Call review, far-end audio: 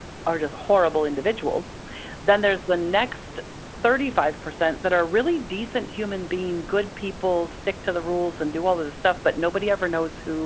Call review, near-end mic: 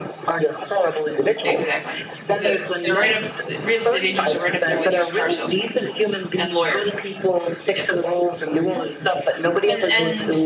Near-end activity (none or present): present